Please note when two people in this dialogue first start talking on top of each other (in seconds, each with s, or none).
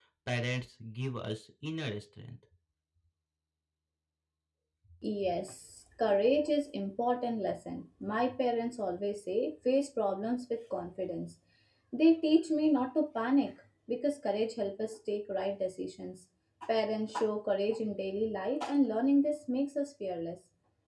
none